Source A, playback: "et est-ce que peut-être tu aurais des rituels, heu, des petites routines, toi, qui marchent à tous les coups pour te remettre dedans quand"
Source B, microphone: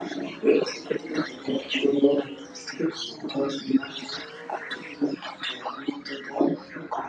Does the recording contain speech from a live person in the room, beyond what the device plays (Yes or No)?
No